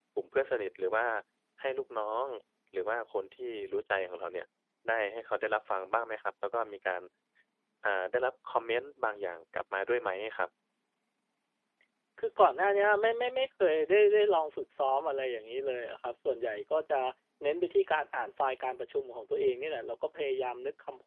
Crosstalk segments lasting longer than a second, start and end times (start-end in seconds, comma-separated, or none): none